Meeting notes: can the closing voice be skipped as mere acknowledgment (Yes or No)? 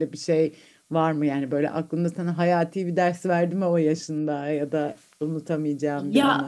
No